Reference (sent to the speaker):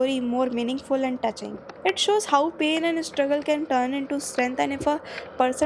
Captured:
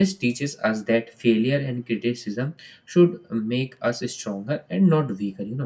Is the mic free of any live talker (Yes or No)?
No